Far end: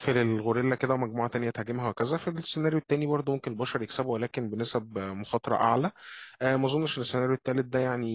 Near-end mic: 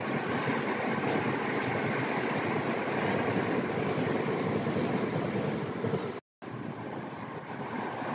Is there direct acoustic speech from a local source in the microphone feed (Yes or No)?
No